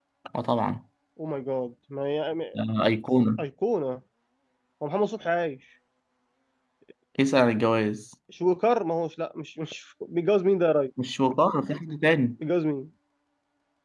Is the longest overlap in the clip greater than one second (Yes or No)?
No